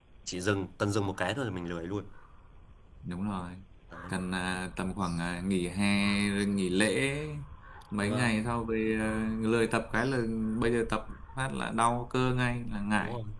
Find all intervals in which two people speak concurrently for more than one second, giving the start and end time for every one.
none

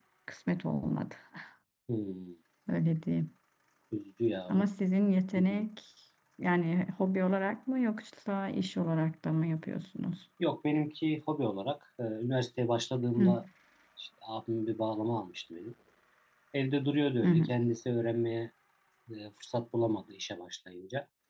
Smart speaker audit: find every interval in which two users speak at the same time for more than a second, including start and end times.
none

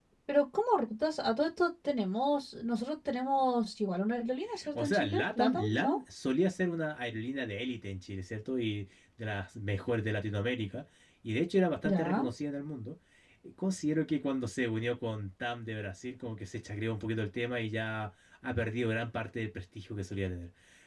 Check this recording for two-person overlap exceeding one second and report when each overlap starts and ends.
4.7-6.0

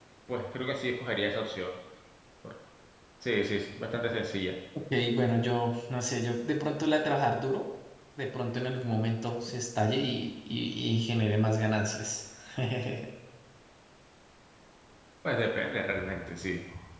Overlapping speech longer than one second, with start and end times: none

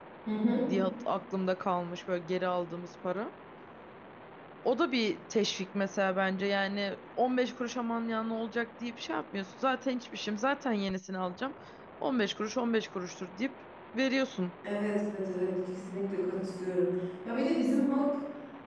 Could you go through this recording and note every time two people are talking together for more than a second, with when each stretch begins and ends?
none

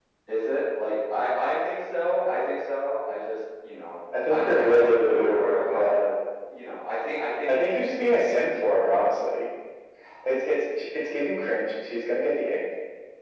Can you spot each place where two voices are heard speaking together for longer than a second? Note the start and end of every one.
4.3-6.0

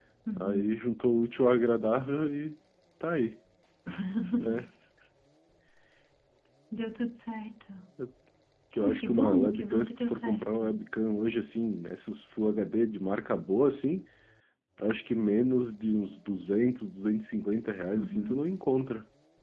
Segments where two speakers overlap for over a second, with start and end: 8.8-10.8

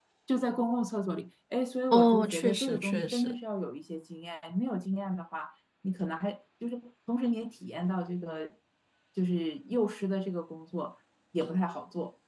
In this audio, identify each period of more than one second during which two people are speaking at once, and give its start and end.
1.9-3.4

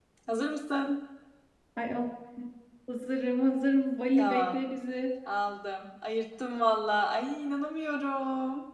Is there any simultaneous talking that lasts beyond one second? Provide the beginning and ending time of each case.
none

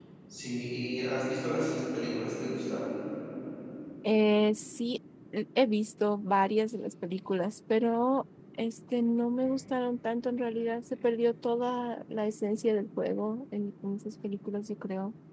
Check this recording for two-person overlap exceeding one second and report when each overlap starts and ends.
none

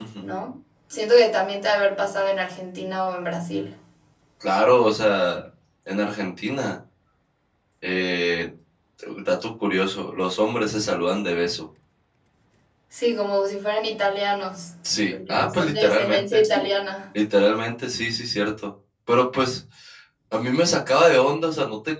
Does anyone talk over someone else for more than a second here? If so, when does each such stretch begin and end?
15.1-16.4

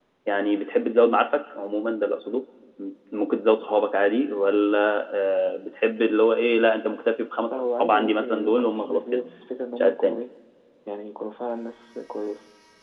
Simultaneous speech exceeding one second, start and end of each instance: 7.5-9.2

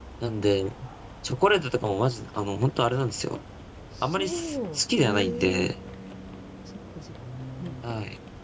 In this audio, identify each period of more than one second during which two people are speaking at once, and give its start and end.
4.0-5.7

